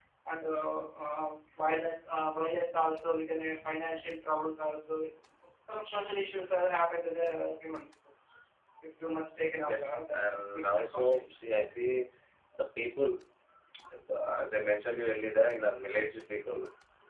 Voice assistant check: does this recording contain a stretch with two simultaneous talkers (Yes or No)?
Yes